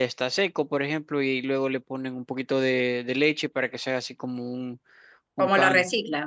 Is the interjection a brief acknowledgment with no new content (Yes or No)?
No